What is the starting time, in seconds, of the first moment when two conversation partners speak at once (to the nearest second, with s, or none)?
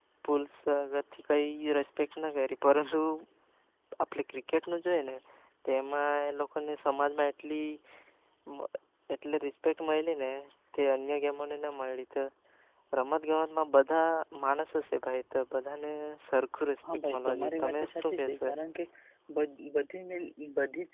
17 s